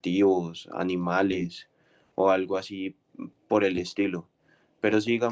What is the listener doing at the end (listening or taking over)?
listening